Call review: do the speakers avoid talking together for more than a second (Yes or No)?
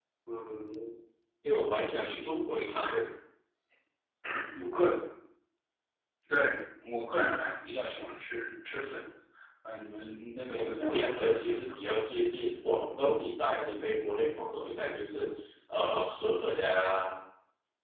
No